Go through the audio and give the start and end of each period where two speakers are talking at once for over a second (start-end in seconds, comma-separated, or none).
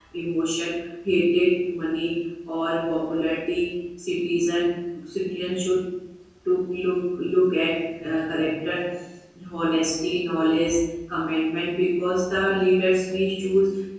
none